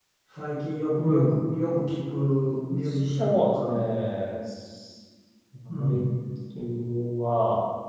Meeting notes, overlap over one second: none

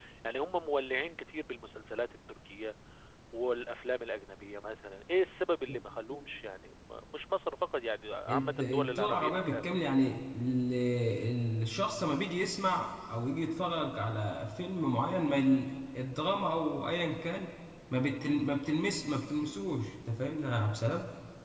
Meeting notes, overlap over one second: present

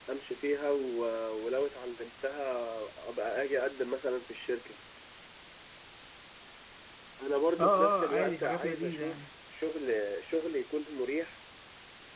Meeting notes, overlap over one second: present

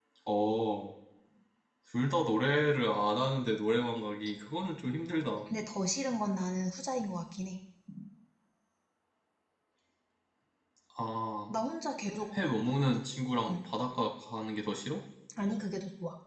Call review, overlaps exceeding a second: none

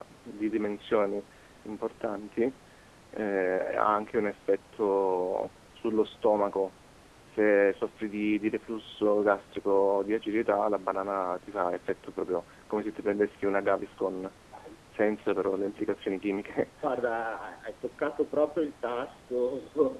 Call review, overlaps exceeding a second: none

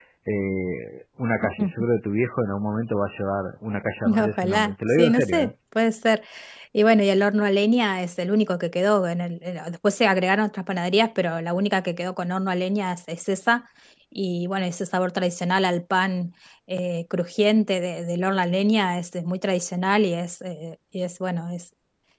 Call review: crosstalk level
present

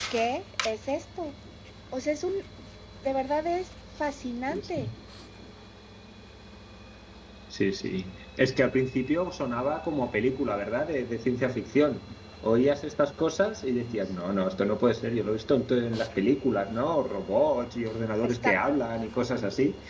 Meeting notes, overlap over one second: none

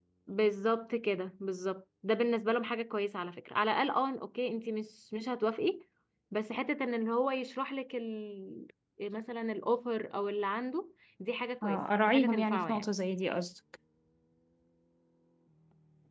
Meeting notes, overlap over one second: present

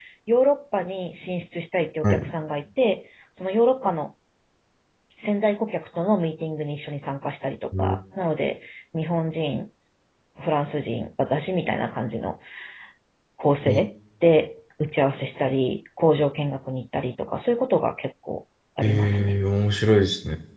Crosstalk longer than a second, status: none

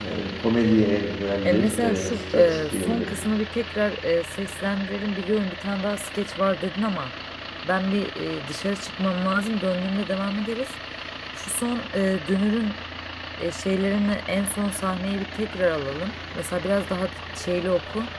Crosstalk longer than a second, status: present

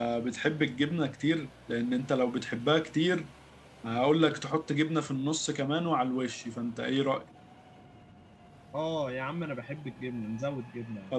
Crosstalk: none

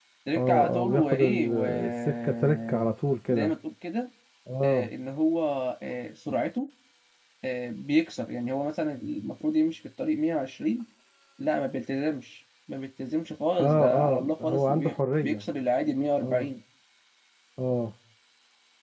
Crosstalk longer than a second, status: present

